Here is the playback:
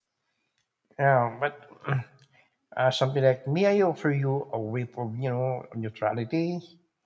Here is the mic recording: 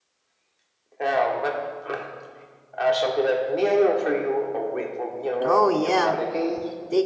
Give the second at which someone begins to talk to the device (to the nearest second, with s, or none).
5 s